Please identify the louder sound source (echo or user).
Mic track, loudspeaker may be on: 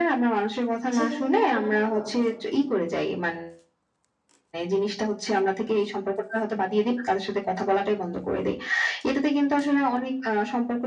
echo